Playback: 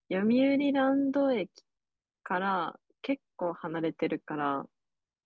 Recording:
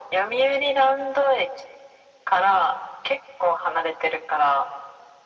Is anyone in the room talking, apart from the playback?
No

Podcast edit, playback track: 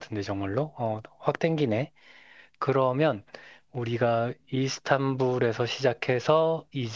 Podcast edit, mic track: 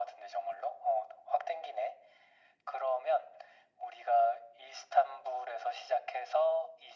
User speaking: No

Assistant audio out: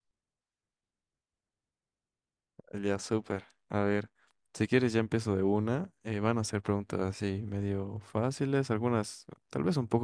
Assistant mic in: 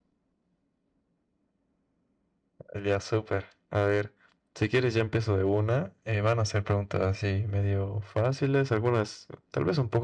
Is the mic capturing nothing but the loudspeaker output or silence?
Yes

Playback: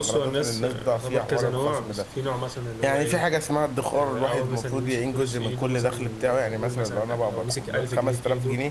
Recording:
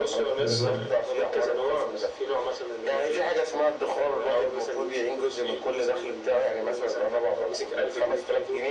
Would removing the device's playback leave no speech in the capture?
No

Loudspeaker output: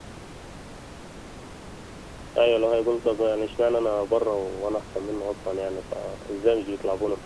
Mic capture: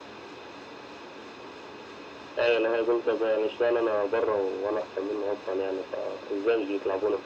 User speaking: No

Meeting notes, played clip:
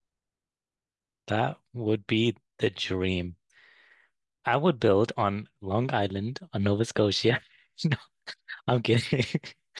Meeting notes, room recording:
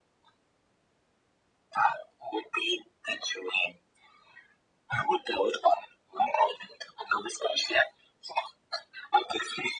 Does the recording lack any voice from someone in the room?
Yes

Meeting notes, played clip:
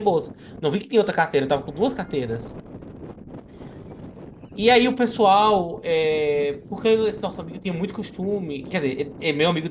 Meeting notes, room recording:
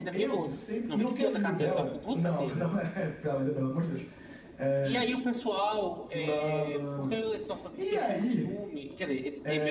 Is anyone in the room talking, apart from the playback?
Yes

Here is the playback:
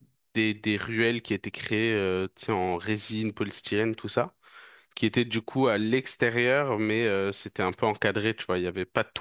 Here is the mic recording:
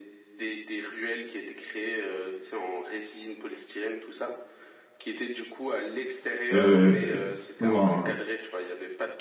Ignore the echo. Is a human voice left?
Yes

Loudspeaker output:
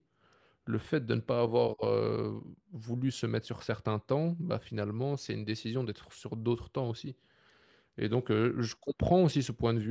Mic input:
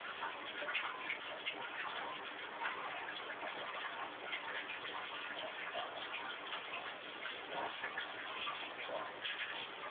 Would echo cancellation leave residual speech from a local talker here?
No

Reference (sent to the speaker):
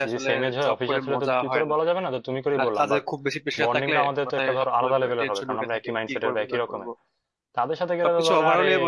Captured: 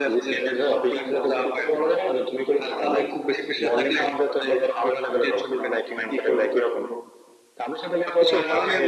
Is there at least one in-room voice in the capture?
No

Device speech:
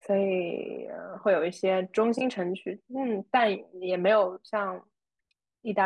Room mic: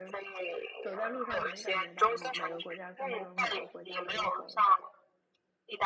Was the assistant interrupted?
Yes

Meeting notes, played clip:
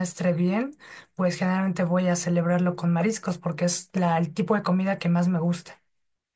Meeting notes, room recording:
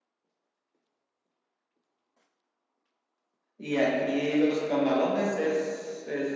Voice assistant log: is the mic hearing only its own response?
No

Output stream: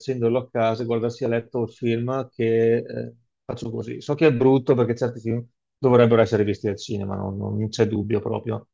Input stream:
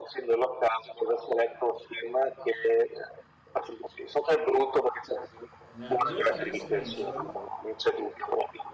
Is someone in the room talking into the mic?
Yes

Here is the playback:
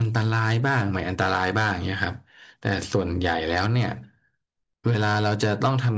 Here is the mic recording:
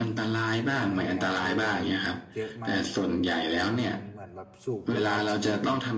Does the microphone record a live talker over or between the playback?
Yes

